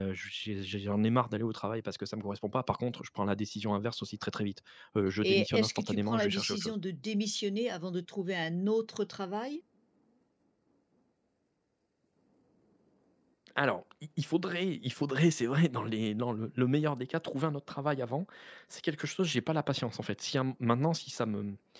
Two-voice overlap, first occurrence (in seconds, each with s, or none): 5.2 s